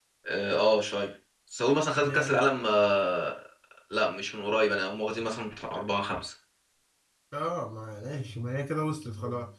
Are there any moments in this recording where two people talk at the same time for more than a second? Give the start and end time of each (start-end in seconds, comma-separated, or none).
none